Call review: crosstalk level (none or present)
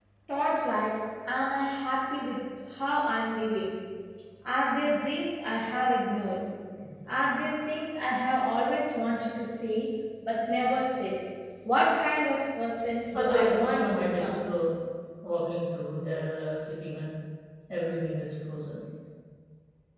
present